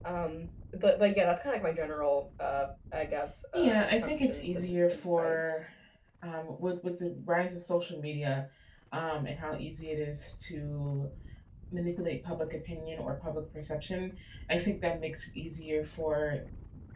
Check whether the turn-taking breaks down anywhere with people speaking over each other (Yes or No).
Yes